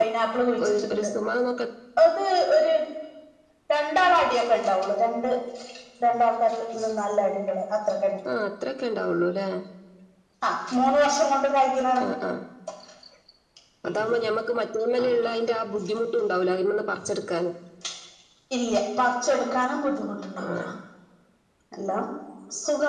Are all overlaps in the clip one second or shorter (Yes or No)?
Yes